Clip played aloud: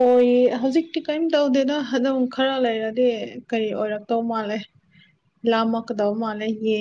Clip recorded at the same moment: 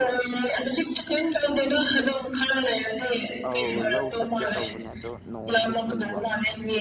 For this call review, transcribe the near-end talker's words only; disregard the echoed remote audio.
ꯑꯧ ꯂꯧ ꯆꯠꯀꯦ ꯇꯧꯕꯅꯦ ꯑꯗꯣ ꯅꯣꯡꯁꯦ ꯆꯨꯕ

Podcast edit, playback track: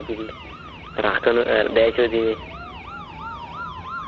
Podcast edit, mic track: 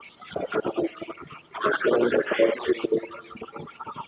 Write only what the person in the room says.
none

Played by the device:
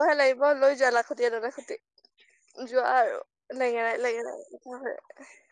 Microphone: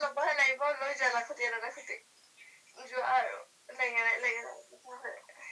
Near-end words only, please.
none

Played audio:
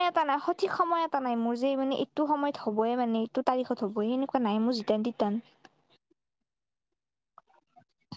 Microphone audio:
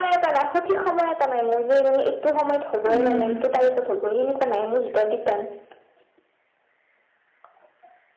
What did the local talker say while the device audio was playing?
উম।

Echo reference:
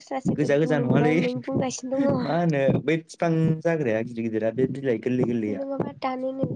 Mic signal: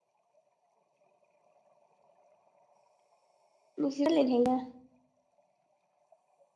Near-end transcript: नोंसोर रायजलायनो हायोना

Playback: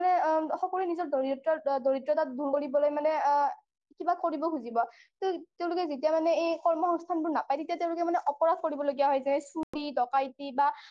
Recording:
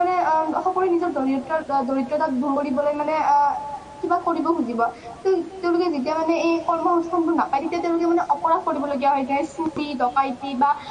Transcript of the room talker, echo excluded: none

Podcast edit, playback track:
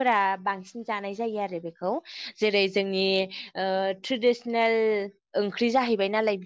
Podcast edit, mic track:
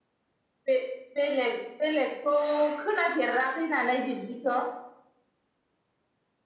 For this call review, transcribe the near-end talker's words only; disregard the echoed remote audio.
बे बेलेग बेलेग खौ खोनाफेराखै जानाय बिब्दिथ'

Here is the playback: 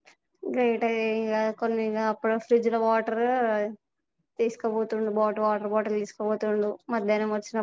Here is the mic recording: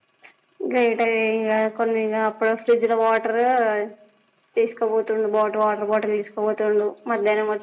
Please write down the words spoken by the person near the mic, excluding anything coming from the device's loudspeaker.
none

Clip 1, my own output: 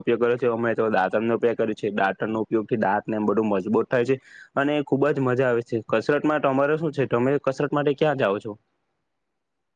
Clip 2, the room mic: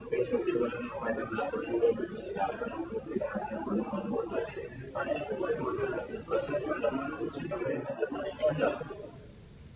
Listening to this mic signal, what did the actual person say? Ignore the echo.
none

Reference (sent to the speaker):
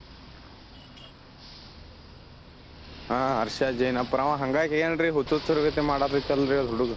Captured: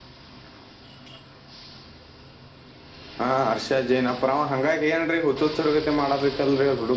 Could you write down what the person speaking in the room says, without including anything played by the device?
none

